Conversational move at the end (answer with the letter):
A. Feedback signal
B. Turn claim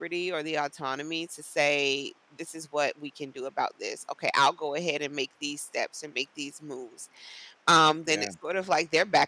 A